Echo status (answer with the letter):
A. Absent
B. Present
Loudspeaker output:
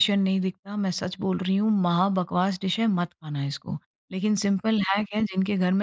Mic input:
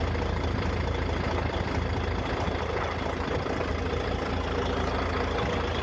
A